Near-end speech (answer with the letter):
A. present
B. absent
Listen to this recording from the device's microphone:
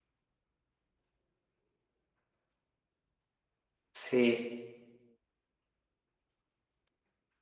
A